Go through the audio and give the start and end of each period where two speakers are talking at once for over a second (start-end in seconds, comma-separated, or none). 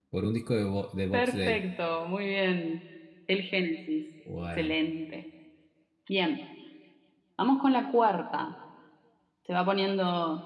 none